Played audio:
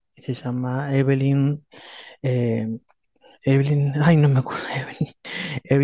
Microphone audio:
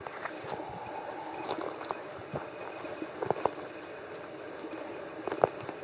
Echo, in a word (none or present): none